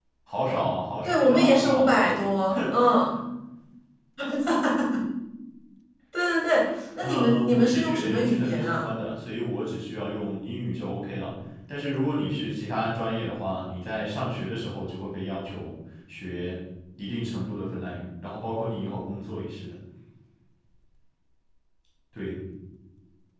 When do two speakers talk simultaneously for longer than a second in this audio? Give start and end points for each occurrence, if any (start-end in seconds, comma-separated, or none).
1.0-2.2, 7.0-8.8